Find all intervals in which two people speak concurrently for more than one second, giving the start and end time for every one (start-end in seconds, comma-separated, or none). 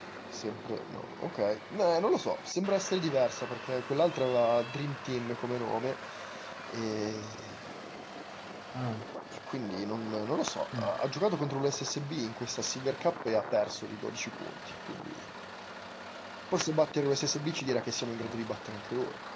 none